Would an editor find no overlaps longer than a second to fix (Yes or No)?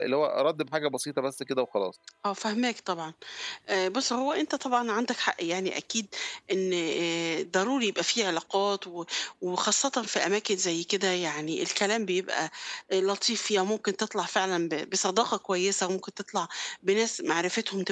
Yes